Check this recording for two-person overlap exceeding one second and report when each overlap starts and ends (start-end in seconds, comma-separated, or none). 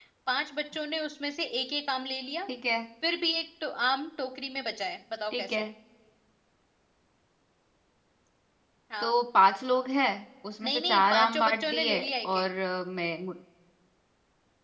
10.6-12.4